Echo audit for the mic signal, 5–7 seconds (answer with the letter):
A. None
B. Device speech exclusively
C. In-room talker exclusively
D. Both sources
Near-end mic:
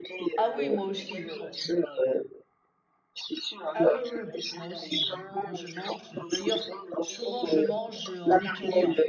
D